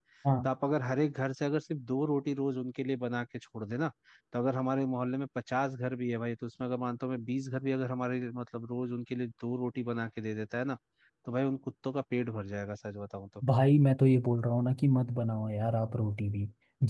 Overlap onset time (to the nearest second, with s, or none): none